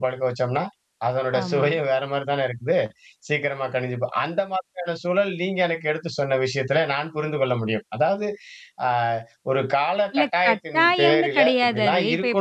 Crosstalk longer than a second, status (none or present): present